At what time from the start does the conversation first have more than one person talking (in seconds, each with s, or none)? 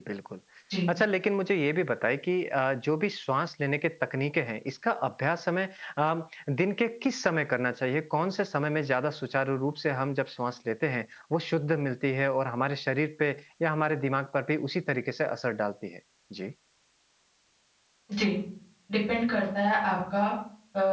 none